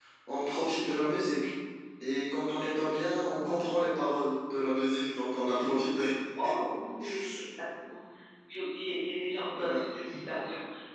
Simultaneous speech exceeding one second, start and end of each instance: none

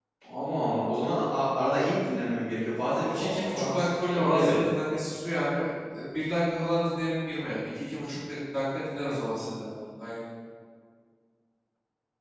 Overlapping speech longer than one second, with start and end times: 3.0-4.7

